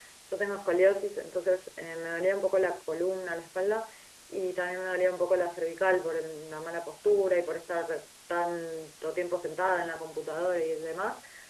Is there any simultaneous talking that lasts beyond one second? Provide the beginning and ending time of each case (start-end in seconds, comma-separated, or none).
none